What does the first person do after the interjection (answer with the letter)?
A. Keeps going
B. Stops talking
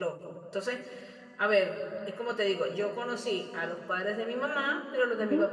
A